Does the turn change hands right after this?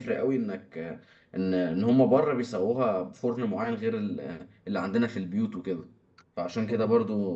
No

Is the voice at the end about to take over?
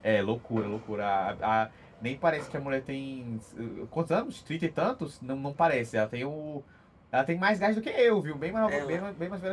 Yes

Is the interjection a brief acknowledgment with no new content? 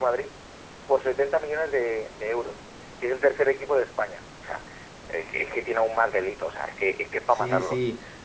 No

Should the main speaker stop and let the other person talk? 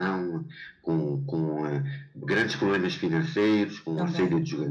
No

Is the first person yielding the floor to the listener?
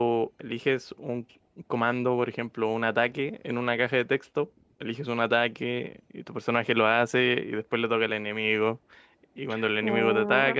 No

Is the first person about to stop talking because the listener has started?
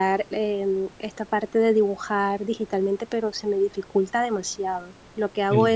No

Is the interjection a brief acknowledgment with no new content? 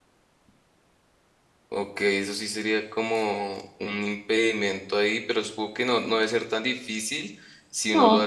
Yes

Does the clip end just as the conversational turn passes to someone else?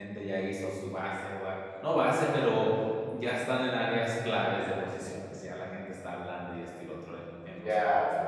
Yes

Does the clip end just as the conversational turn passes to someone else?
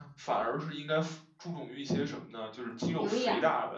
No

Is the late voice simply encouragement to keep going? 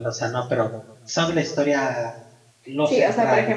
No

